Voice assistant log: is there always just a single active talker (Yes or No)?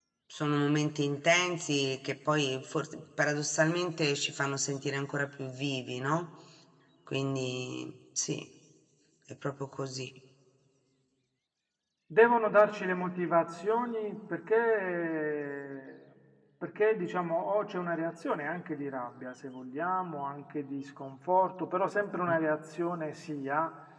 Yes